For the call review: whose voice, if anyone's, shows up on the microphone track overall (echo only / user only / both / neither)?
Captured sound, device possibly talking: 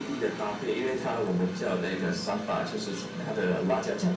echo only